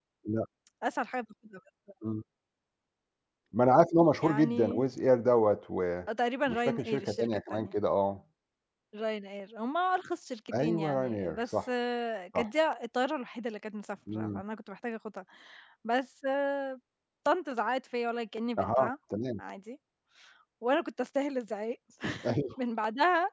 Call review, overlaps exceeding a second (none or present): present